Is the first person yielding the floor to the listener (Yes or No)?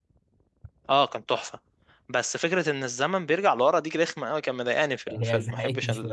Yes